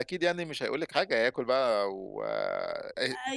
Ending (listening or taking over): taking over